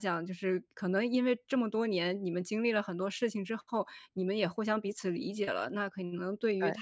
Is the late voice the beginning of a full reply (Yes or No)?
No